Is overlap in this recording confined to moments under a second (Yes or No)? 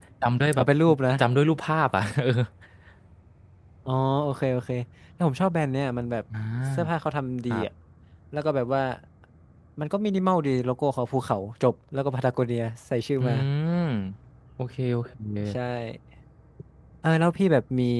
Yes